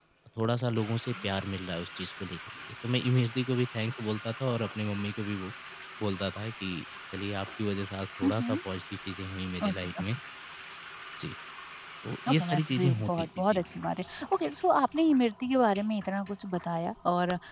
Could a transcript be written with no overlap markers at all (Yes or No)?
No